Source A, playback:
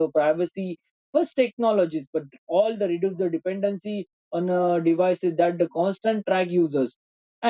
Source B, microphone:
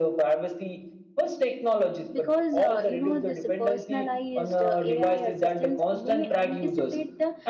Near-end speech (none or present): present